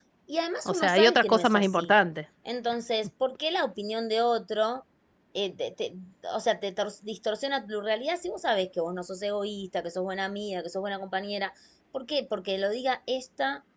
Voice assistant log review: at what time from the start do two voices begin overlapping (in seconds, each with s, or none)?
0.6 s